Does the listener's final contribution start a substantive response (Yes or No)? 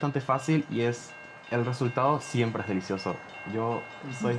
Yes